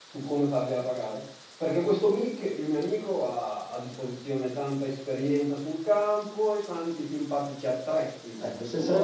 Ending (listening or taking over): taking over